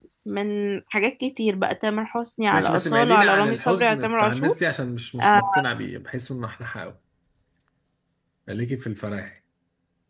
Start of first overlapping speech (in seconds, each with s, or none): 2.5 s